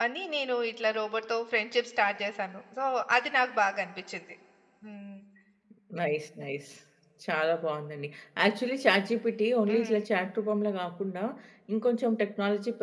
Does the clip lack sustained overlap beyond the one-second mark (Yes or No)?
Yes